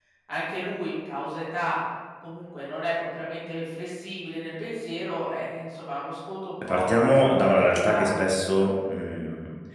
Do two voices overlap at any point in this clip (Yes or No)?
Yes